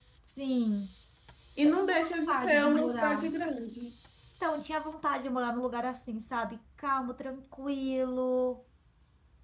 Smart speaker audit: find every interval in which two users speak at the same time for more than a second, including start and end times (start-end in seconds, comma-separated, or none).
1.6-3.2